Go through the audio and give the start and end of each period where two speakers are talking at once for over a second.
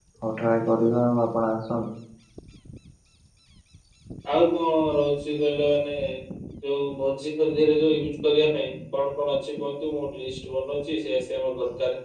none

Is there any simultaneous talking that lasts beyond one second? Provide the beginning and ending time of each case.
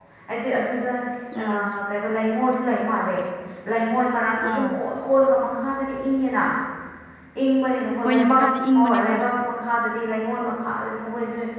none

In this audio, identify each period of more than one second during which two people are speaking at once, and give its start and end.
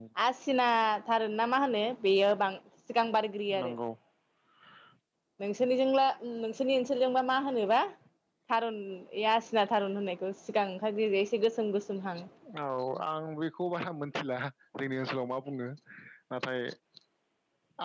none

